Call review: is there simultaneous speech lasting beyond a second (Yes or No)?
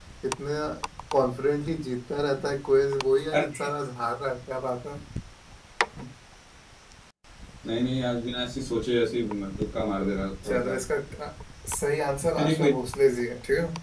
No